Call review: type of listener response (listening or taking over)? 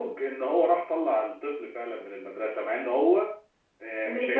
listening